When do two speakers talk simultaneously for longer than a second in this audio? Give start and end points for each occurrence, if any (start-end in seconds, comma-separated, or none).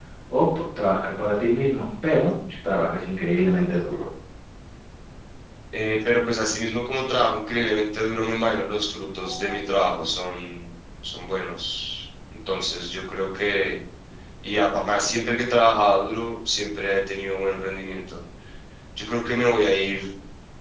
none